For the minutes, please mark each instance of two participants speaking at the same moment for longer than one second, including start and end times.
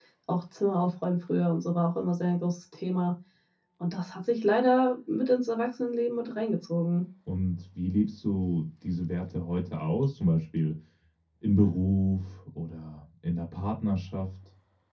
none

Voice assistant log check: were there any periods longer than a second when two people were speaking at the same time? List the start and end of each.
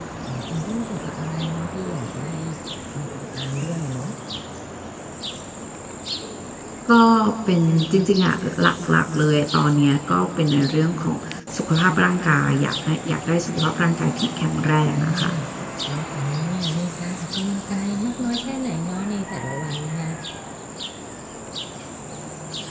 none

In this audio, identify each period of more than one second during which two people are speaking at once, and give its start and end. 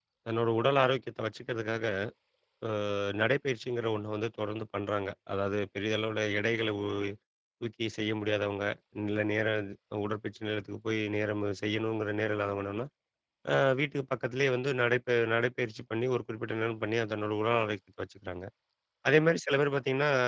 none

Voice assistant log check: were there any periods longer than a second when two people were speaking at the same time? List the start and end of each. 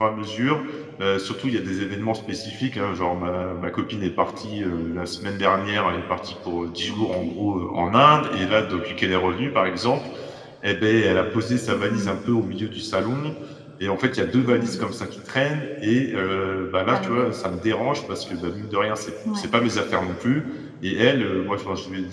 none

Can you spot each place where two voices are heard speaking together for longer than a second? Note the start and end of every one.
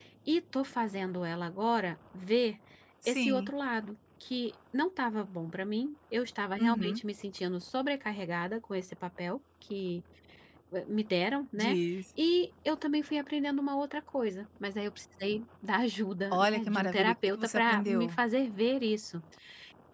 16.3-18.1

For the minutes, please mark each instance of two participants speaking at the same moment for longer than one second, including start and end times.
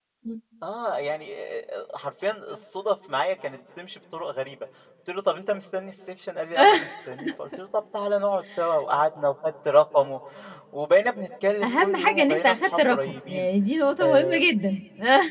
11.6-13.5

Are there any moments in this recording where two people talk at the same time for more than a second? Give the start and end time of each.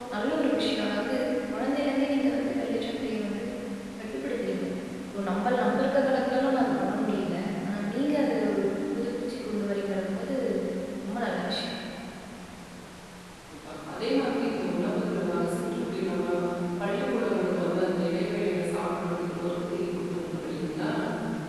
none

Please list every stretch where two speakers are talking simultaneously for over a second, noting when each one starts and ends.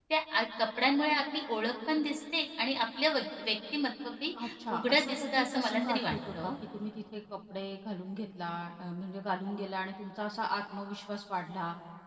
4.7-6.5

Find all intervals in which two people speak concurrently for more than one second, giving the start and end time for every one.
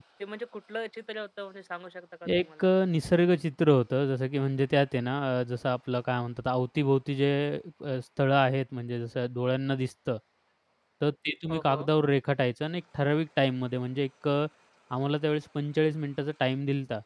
none

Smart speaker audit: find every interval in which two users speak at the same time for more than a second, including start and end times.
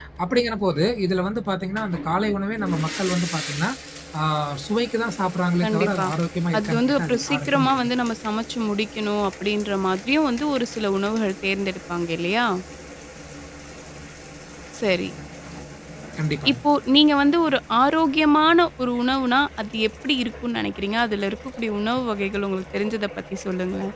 6.6-7.9

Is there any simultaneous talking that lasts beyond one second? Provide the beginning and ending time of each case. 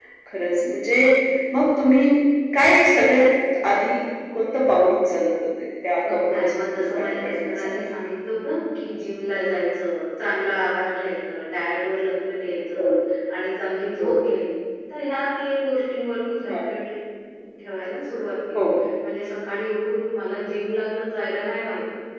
6.0-7.7

